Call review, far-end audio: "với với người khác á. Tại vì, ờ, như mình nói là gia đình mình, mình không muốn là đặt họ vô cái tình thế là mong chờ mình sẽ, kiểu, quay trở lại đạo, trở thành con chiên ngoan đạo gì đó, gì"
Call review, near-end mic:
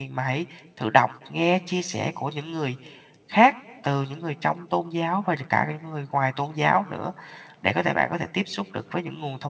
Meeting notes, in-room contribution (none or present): present